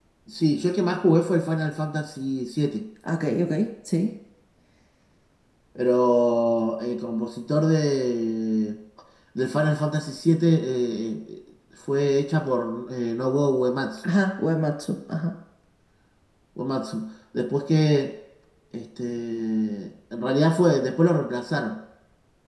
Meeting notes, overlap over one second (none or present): none